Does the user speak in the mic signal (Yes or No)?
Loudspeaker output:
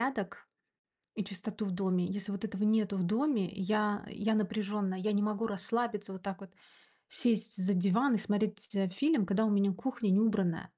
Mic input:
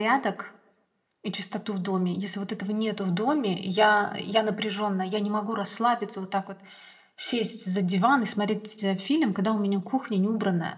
No